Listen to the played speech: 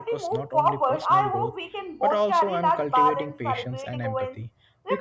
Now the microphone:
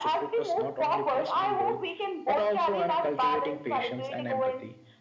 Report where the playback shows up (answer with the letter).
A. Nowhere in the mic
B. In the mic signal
B